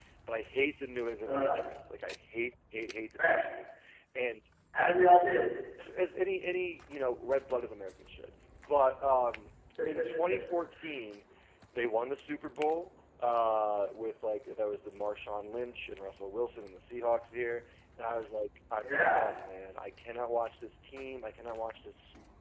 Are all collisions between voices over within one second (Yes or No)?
Yes